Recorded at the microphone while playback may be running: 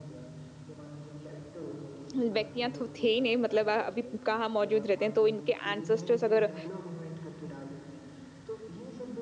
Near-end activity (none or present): present